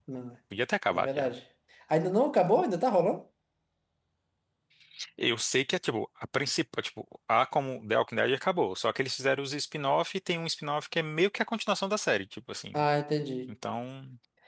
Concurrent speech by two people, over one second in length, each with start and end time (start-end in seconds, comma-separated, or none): none